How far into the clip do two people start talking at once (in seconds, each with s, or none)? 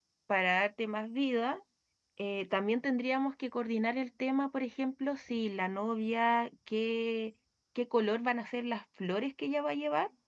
none